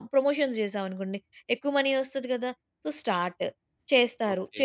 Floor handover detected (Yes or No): Yes